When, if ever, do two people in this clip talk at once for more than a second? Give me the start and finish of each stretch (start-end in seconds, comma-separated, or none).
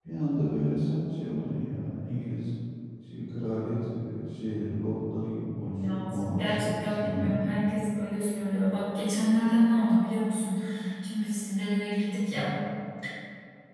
5.7-7.4